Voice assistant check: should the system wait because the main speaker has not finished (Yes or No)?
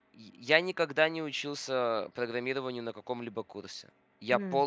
Yes